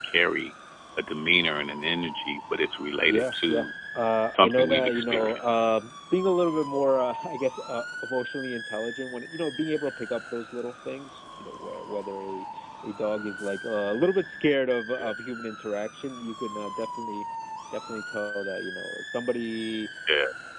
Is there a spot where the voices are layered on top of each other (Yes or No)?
Yes